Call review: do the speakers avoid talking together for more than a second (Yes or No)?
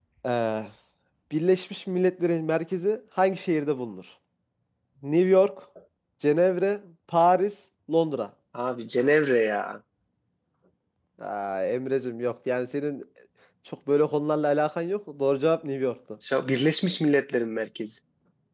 Yes